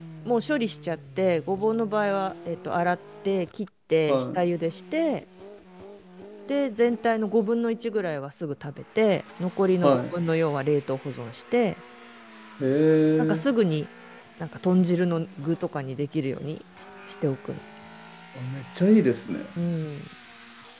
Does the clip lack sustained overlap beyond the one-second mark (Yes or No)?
Yes